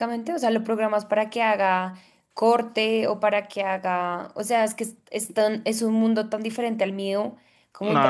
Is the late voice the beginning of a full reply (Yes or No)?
Yes